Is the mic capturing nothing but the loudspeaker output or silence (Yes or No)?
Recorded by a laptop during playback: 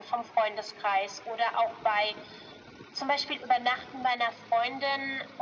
Yes